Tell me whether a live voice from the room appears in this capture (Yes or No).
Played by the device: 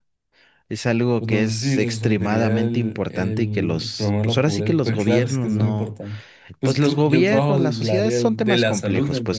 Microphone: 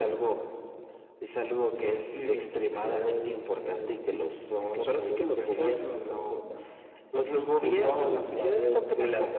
No